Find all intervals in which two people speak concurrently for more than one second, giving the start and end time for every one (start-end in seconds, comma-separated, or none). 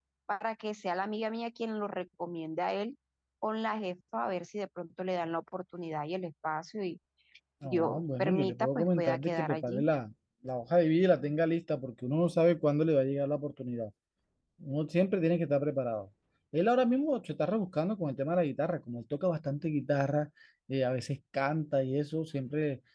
7.6-9.8